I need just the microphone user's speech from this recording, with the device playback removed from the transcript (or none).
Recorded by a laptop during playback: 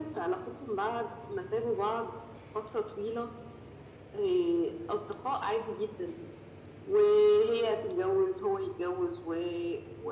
none